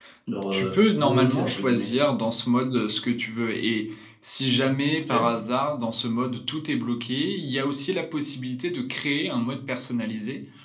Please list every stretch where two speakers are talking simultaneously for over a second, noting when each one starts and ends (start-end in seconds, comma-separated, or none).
0.5-1.9